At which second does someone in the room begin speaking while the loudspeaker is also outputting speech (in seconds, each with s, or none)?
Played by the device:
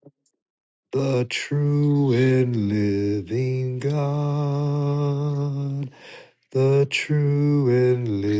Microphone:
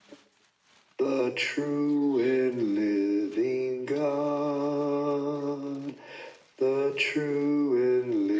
none